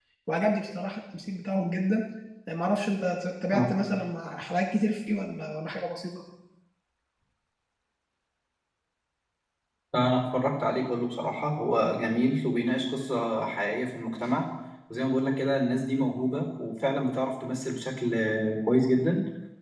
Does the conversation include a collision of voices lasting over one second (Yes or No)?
No